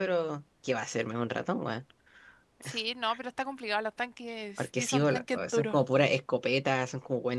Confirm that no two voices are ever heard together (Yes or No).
No